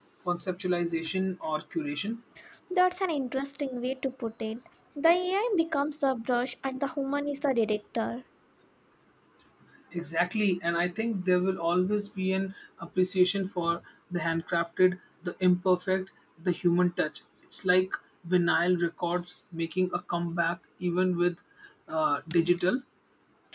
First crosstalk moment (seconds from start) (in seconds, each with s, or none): none